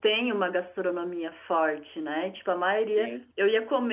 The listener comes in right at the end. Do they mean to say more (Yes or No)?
No